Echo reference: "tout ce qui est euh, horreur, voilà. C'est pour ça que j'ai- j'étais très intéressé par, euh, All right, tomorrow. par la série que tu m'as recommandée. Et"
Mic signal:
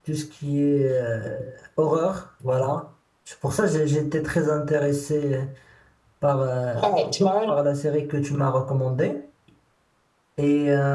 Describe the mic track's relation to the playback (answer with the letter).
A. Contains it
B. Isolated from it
A